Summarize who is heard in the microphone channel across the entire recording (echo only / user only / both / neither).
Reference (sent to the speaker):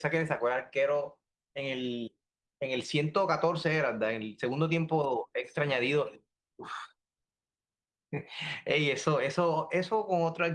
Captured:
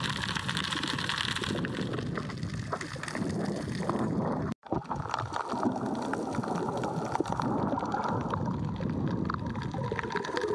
neither